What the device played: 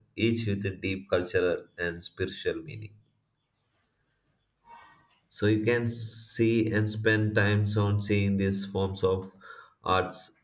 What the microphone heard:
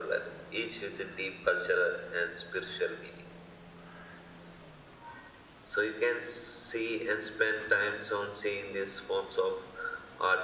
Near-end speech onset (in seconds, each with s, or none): none